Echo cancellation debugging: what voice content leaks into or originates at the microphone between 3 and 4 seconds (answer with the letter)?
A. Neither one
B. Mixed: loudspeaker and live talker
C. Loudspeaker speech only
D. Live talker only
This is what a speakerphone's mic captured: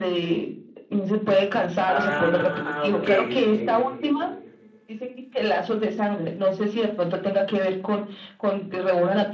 B